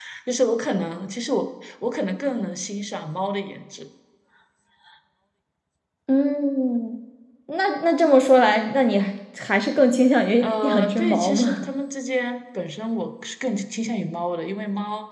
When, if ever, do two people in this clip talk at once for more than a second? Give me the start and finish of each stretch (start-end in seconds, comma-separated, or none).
10.4-11.6